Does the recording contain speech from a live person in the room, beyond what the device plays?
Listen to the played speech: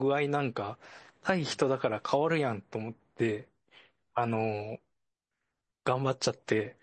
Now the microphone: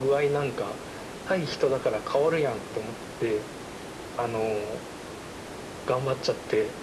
No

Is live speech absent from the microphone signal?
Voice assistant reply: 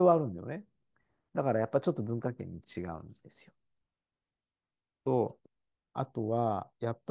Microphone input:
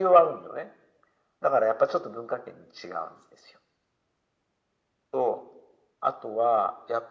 Yes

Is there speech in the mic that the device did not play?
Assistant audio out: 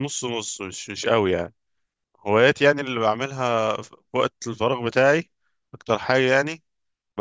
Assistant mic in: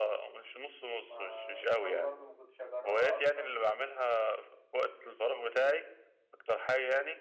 Yes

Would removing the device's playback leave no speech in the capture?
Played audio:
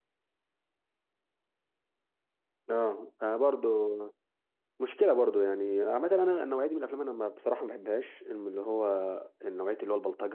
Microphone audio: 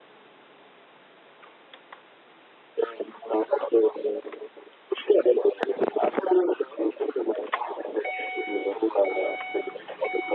Yes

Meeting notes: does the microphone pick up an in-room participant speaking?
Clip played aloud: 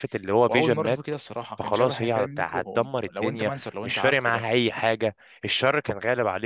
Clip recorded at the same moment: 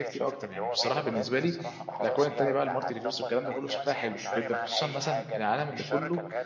Yes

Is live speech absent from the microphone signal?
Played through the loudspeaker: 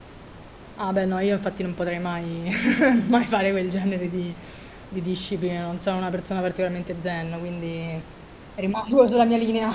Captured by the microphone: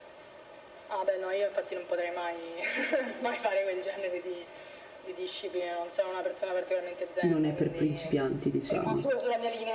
No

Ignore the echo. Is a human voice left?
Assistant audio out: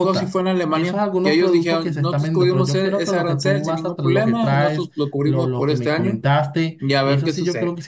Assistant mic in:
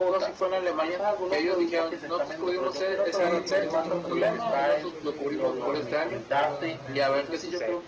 Yes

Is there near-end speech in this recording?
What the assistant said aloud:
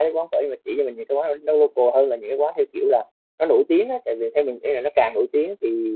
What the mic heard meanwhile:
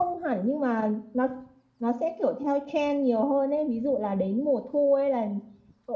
Yes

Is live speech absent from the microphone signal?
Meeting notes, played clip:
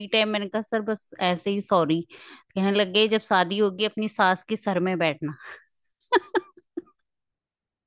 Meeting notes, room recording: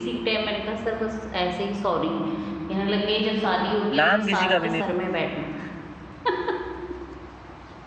No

